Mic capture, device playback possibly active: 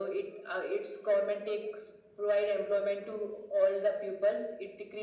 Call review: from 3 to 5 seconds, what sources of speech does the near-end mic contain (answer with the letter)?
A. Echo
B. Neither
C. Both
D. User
A